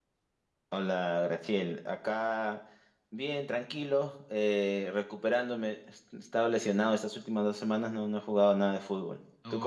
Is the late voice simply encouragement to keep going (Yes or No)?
No